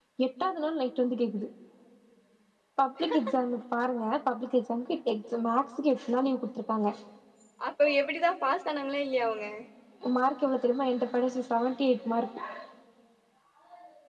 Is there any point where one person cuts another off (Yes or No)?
No